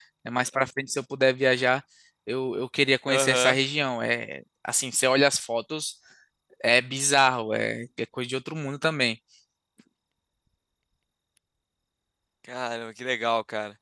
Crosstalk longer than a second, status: none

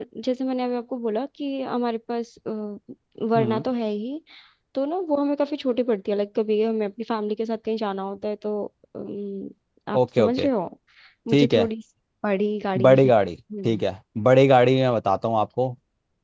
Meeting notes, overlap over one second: none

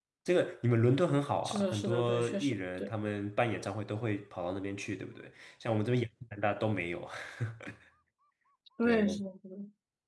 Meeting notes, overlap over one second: present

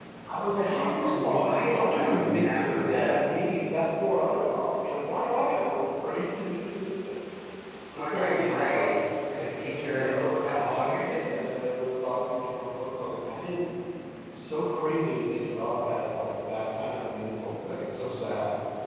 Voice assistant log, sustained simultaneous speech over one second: present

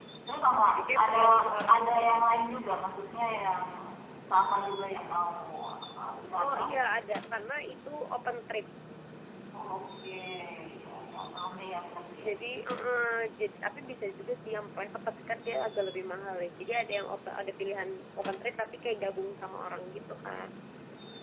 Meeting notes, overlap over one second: present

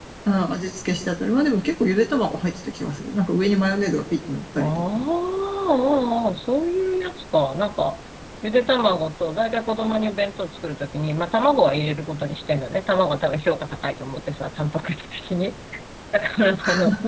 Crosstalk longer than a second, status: none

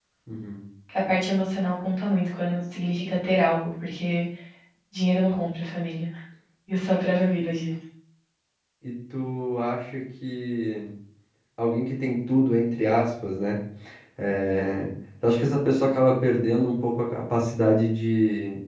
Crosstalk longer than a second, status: none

